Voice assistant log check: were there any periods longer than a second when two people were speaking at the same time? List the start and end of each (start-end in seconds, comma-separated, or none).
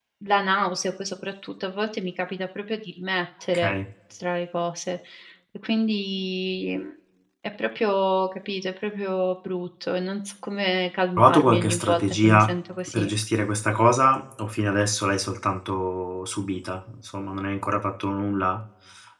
11.2-12.5